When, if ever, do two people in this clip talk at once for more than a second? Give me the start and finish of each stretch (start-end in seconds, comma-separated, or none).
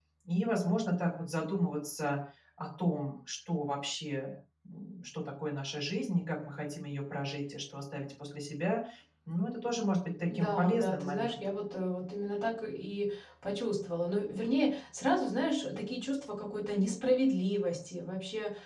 10.3-11.5